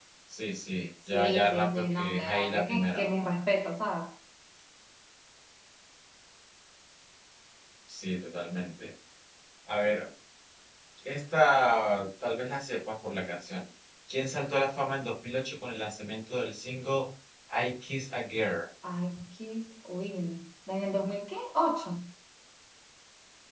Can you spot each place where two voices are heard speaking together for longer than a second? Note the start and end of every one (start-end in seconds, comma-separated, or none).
1.1-3.1